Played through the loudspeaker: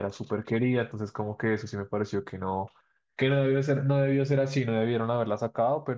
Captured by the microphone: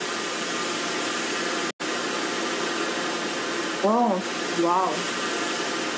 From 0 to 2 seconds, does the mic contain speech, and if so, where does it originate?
neither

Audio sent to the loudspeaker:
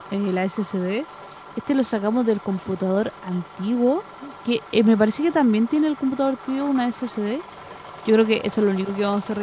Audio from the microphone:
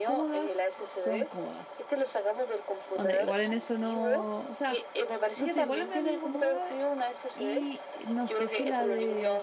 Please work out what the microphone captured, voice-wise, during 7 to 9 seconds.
both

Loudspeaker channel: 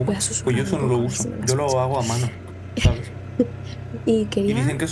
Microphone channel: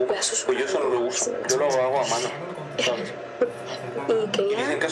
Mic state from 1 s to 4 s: both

